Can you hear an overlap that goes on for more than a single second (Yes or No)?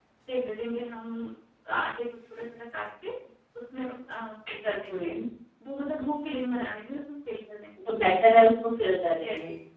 No